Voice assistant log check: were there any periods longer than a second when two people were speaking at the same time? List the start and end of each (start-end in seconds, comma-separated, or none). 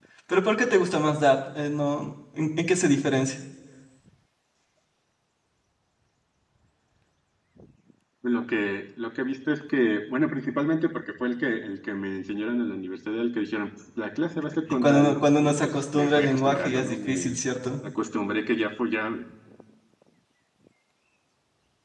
14.7-17.3